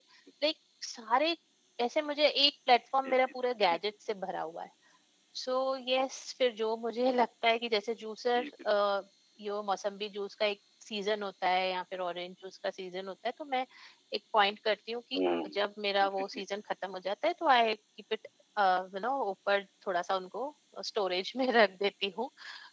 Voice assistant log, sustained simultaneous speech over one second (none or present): none